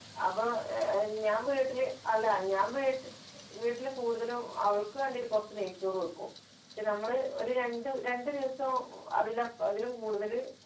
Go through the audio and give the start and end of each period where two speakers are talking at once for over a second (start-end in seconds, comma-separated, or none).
none